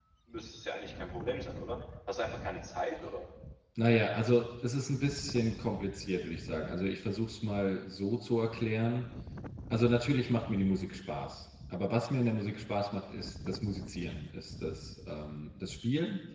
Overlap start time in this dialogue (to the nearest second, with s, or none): none